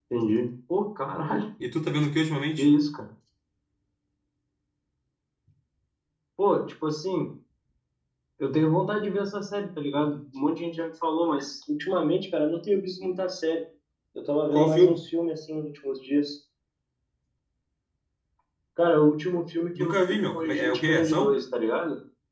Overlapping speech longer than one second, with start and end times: 19.8-21.4

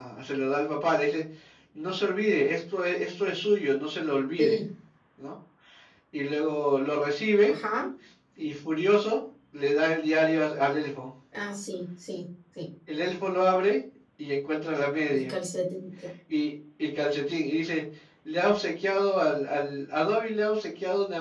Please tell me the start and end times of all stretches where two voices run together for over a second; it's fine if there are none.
none

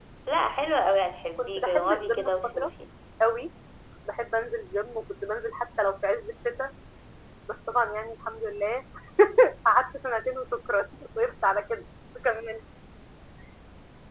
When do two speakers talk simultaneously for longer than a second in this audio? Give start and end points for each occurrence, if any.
1.4-2.7

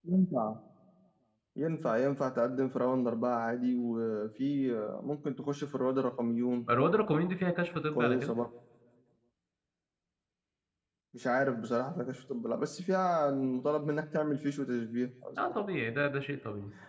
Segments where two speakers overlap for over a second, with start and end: none

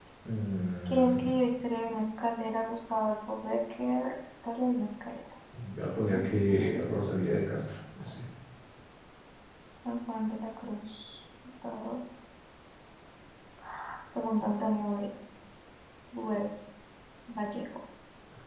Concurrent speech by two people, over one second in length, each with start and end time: 6.1-7.4

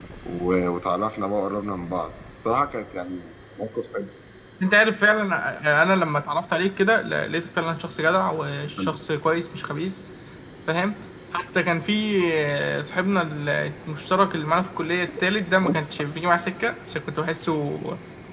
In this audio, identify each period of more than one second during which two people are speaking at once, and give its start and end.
none

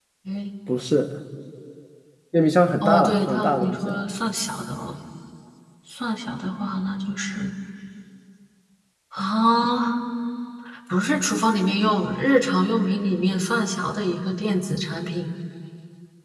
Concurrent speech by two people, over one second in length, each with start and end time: 2.8-4.0

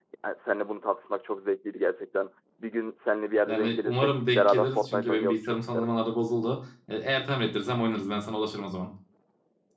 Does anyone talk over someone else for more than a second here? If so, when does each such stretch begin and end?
3.5-5.9

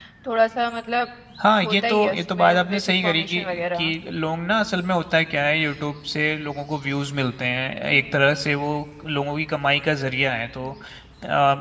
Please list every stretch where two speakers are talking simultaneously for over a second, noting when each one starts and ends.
1.6-3.9

